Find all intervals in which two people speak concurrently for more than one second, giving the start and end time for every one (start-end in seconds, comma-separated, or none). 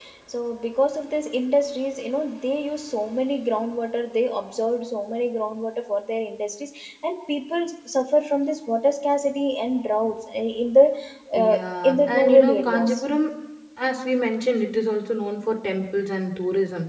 11.3-13.0